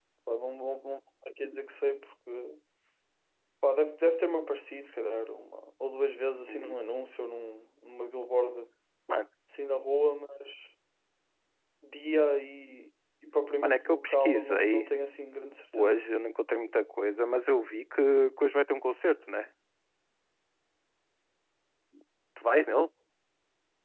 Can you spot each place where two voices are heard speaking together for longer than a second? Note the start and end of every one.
13.6-14.9

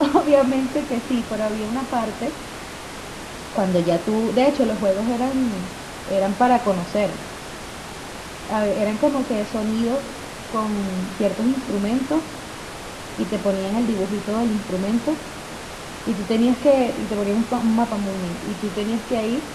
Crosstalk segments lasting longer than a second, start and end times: none

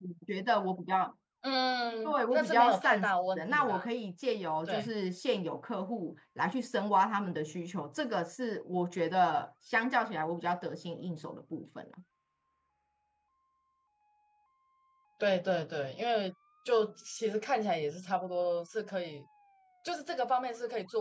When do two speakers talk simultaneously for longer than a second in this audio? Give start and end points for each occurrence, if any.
2.0-3.8

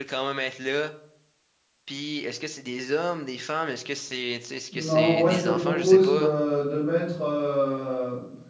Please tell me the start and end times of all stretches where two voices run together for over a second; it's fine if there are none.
4.7-6.3

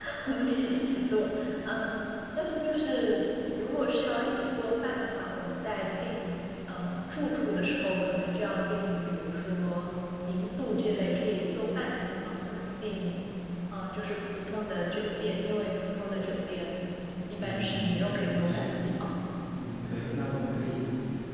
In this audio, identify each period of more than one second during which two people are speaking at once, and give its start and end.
17.4-18.8

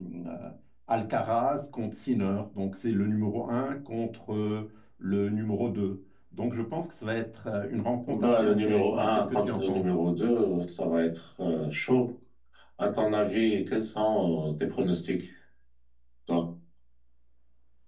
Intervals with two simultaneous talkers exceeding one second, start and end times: 8.1-9.9

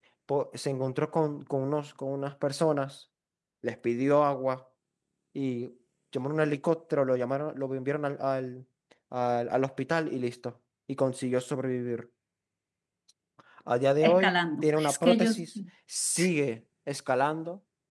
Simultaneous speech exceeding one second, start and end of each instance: 14.0-15.4

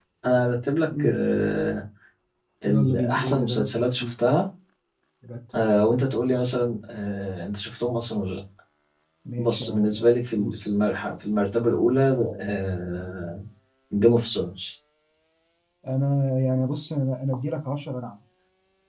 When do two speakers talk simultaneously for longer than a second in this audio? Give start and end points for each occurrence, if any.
2.6-4.1, 9.4-10.7

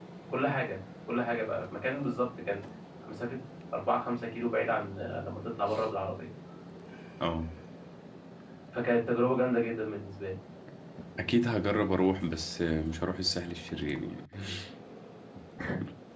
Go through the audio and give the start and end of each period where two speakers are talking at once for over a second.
none

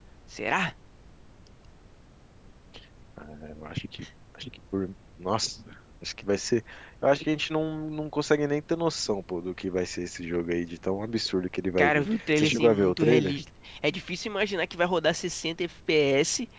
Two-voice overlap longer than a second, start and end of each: 11.8-13.4

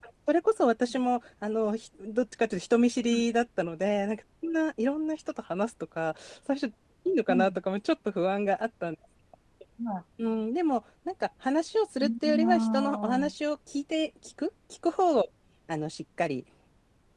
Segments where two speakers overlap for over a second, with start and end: 12.0-13.3

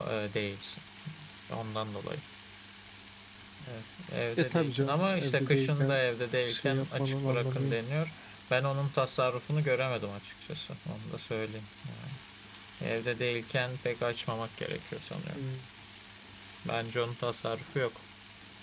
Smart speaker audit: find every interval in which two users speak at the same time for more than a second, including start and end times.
4.4-6.0, 6.5-7.8

